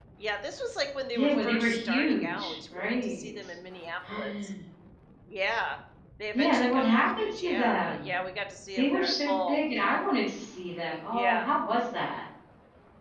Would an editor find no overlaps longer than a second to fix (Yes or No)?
No